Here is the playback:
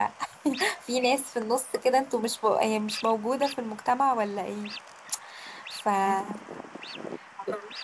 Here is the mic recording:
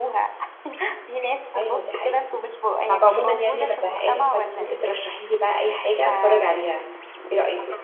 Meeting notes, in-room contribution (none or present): present